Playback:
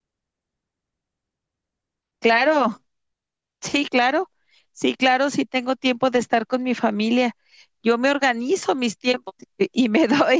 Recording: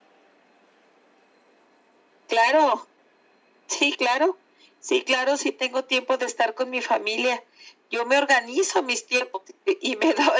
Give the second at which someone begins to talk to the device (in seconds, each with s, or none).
none